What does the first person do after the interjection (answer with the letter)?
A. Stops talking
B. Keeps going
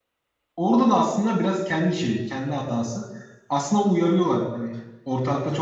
B